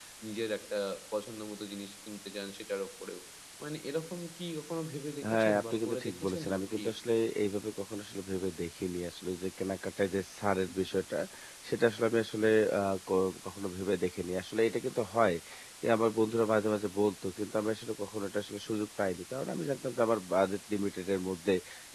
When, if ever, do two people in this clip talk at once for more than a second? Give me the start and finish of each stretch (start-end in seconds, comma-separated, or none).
5.3-6.9